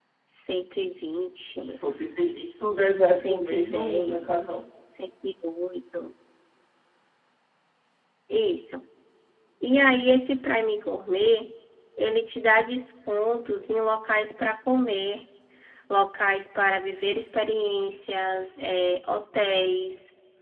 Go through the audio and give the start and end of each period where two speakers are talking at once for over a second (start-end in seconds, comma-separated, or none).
3.0-4.6